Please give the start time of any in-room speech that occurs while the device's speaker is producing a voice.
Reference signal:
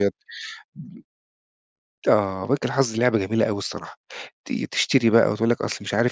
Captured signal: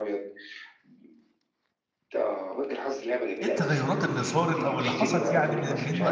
3.4 s

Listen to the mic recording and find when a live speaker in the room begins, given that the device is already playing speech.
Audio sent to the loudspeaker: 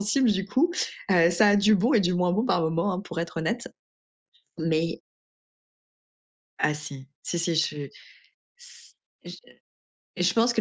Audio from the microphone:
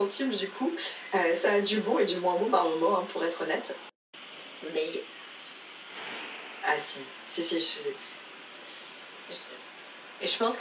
none

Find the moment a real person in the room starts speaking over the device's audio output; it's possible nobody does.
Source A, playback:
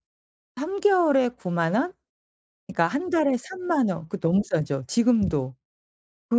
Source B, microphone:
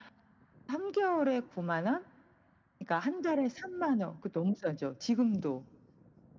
none

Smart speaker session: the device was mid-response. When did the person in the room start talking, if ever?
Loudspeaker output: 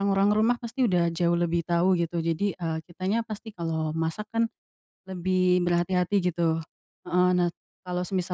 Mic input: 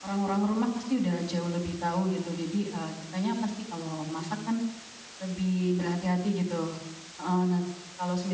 none

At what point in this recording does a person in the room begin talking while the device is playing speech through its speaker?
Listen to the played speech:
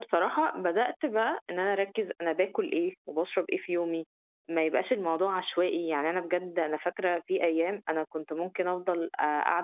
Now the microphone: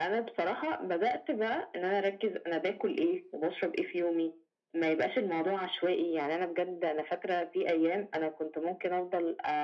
none

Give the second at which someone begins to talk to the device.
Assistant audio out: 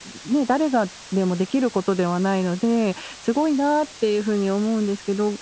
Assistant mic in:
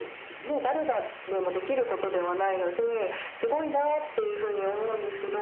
none

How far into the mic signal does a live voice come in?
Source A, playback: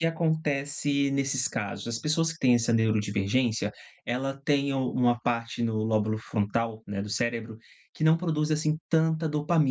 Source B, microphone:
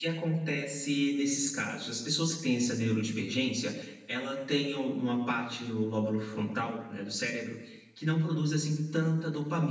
none

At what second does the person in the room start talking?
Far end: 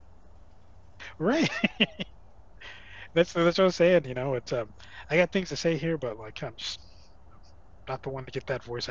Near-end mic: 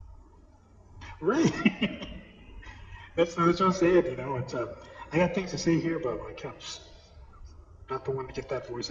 none

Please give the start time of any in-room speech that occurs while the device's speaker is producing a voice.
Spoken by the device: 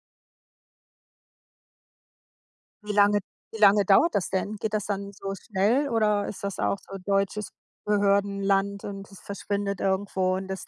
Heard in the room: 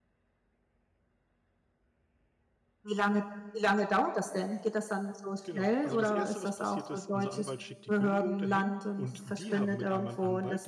5.4 s

